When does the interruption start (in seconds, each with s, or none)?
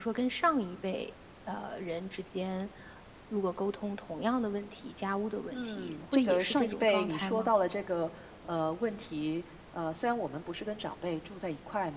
5.5 s